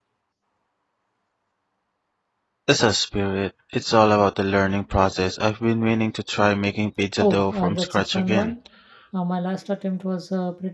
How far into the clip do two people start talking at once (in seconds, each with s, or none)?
7.2 s